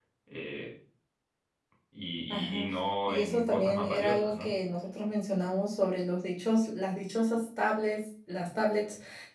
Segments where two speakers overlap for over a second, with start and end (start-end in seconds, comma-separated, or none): 3.1-4.5